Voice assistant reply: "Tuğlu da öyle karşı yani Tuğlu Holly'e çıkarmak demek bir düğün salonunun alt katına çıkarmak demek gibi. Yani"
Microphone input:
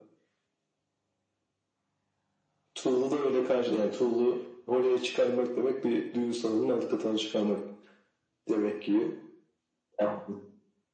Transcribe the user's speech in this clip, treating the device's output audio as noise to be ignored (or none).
none